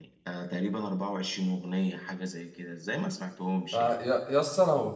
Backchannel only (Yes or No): No